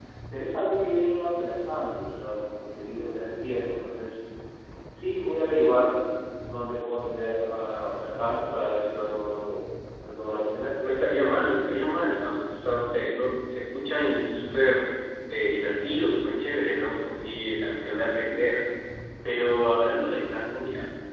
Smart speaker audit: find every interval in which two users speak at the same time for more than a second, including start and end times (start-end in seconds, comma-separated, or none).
none